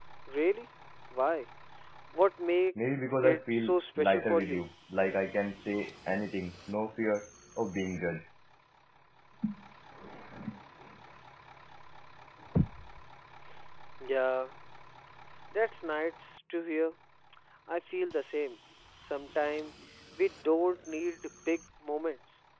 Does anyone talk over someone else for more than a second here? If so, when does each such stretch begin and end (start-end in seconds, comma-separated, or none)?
3.2-4.6